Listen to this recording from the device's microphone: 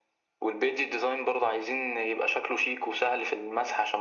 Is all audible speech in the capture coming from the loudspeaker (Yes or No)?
Yes